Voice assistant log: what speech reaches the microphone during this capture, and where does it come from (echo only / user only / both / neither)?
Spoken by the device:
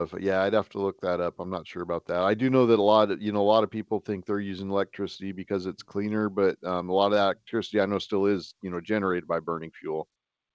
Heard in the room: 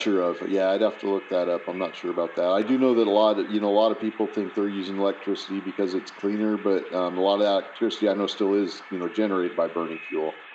echo only